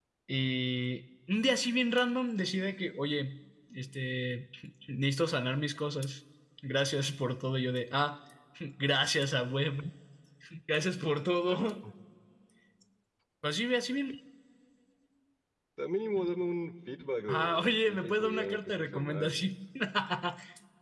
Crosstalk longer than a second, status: present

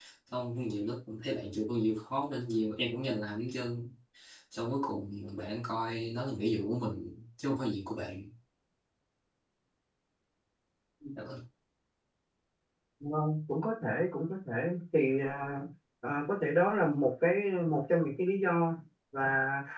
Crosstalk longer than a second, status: none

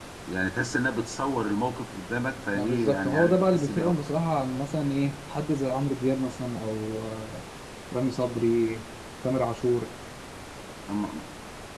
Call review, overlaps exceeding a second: present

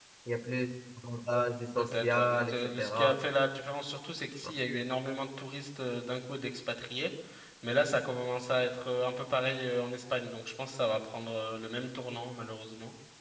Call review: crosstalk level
present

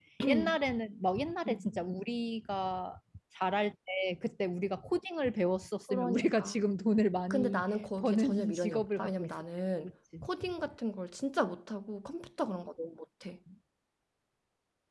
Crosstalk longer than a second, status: present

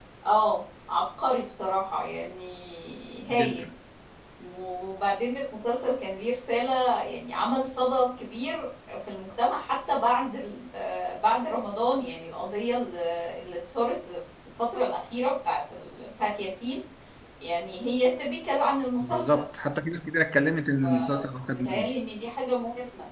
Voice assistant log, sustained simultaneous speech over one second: none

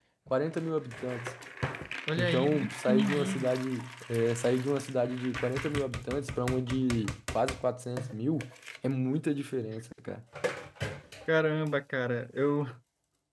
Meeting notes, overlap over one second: present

